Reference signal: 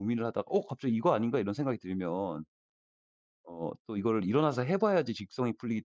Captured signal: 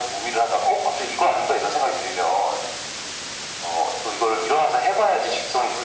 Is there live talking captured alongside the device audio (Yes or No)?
No